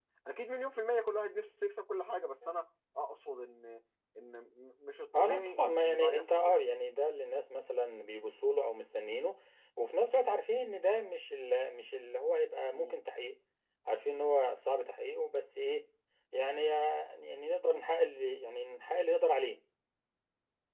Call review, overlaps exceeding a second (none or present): present